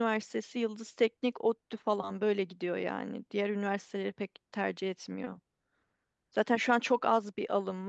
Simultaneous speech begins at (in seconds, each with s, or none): none